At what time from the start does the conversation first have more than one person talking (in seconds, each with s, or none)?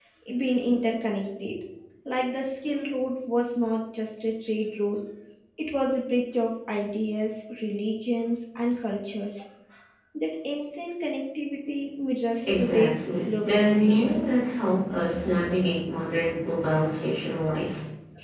12.4 s